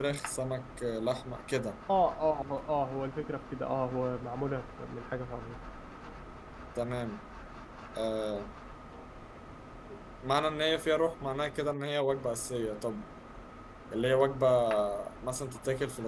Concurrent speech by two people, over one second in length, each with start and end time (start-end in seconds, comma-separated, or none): none